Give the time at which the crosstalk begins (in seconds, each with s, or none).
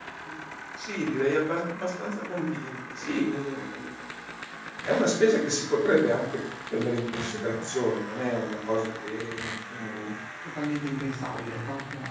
none